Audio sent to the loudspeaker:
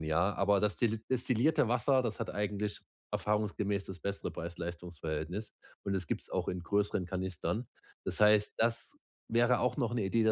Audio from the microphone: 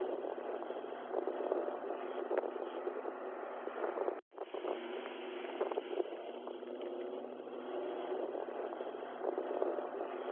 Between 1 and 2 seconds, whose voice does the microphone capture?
neither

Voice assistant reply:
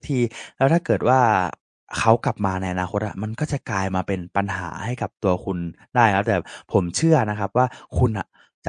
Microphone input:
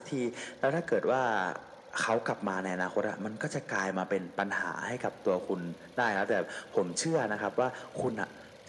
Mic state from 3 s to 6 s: echo only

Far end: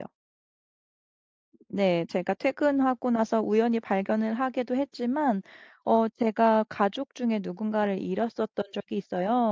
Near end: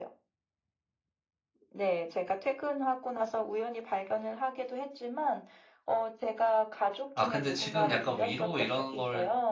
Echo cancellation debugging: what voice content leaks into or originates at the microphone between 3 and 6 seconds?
echo only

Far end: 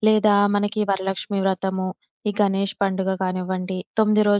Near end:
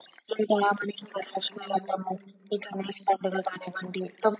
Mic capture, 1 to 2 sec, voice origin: both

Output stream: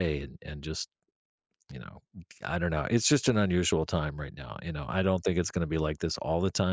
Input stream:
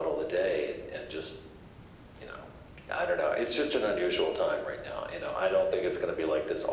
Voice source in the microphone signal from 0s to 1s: echo only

